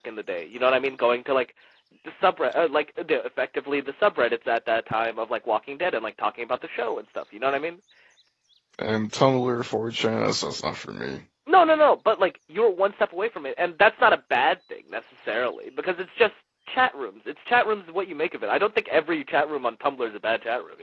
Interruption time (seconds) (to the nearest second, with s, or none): none